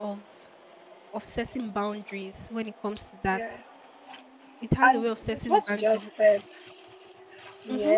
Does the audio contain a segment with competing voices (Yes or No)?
Yes